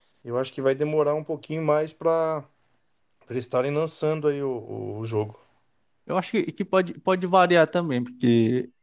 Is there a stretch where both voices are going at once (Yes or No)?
No